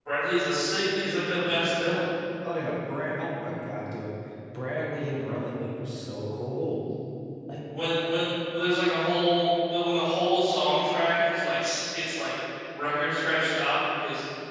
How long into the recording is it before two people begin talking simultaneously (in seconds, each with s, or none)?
none